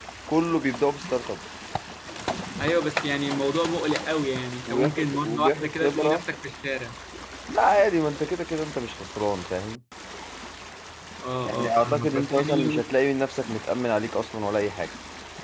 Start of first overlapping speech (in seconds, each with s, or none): 4.7 s